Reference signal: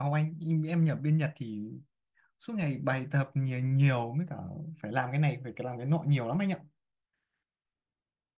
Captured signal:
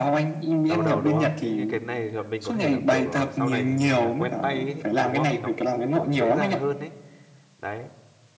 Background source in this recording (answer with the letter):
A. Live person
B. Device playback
A